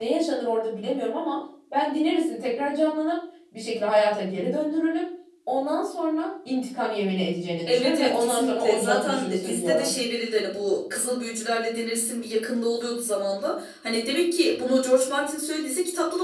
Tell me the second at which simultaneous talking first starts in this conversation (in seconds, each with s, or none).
7.7 s